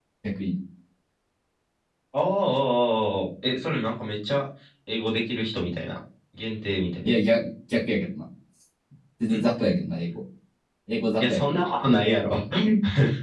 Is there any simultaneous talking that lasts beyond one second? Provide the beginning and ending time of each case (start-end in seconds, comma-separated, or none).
none